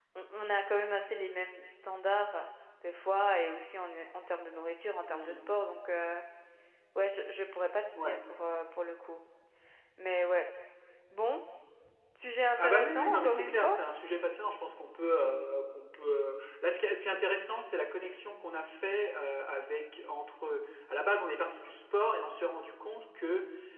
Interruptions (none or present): present